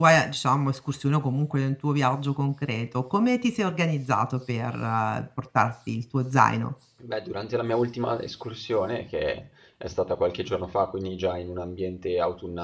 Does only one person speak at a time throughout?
Yes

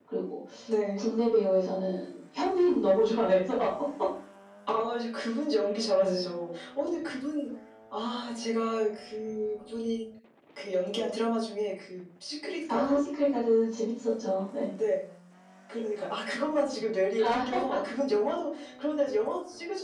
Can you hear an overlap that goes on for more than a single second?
No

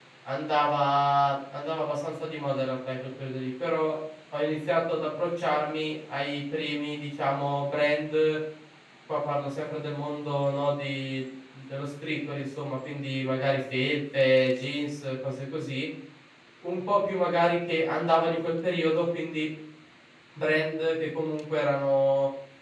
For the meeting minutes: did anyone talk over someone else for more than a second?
No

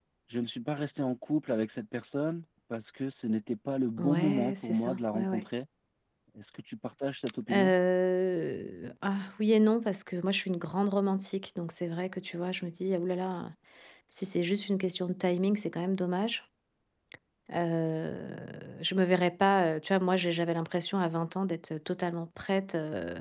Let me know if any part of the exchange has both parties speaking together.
Yes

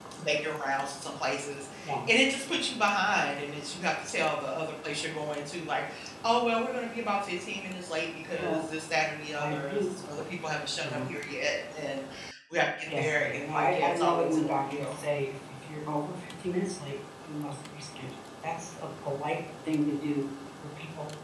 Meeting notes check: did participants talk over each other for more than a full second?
Yes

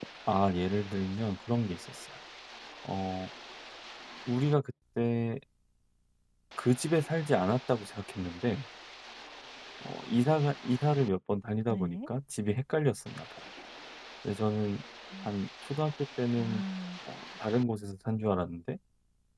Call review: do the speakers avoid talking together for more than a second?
Yes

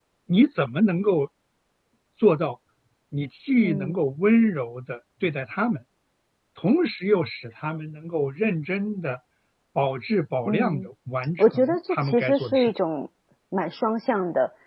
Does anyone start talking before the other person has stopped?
Yes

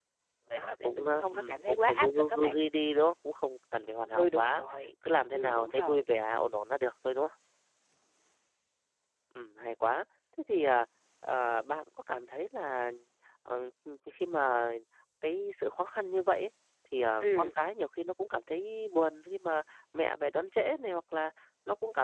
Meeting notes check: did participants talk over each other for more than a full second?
Yes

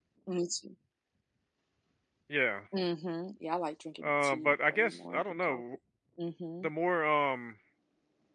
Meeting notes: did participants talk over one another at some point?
Yes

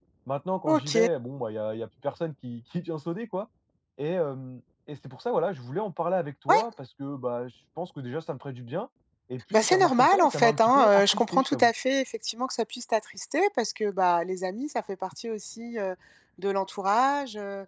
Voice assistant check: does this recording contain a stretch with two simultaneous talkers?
Yes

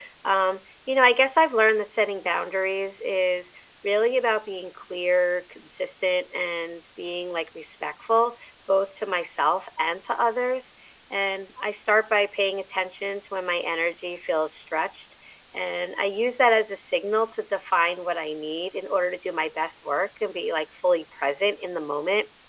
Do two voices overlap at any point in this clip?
No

